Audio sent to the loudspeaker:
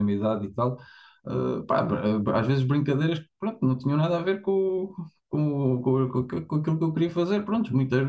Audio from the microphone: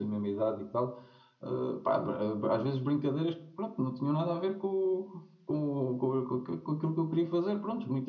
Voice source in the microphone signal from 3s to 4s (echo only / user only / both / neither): echo only